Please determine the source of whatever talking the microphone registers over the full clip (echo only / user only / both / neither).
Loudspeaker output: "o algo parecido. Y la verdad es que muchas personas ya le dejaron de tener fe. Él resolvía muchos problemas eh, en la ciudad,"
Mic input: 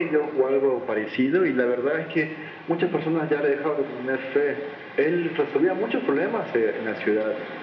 echo only